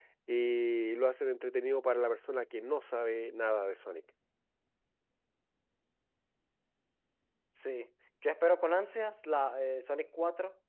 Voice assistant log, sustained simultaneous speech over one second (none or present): none